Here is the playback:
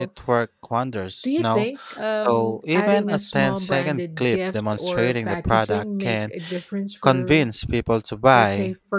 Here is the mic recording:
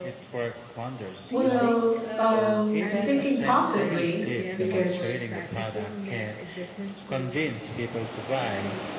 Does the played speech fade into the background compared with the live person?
Yes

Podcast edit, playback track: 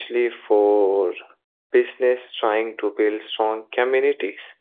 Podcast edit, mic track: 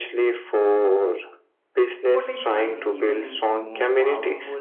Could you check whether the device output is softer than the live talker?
No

